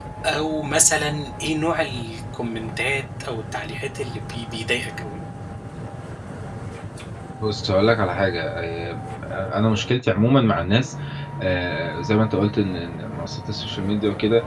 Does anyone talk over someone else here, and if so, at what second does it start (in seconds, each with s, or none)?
none